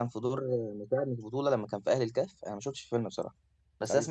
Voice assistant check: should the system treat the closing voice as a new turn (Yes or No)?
No